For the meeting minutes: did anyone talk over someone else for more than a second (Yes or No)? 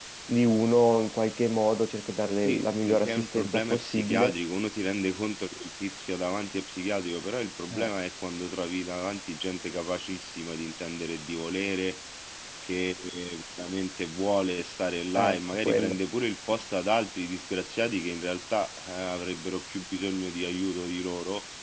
Yes